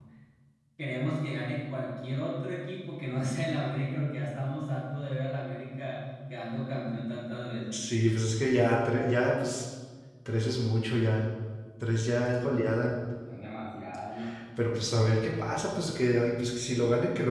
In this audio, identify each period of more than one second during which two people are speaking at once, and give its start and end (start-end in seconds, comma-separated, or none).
none